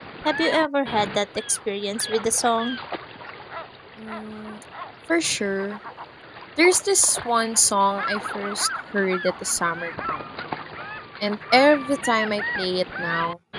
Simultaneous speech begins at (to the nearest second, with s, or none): none